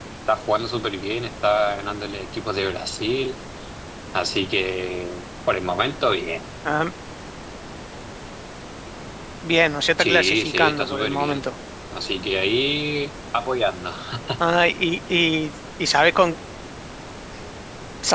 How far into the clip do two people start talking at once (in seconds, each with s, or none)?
10.0 s